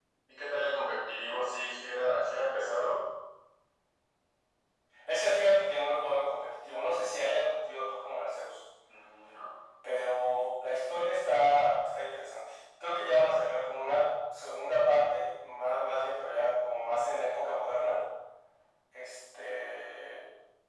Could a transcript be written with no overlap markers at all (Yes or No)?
Yes